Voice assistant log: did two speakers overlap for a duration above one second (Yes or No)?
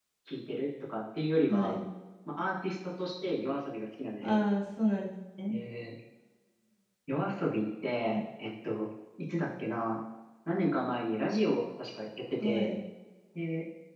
No